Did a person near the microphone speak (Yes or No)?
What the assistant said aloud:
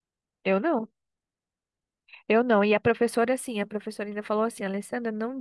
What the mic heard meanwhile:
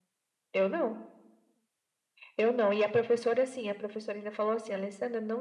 No